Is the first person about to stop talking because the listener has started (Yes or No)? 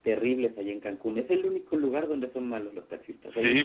Yes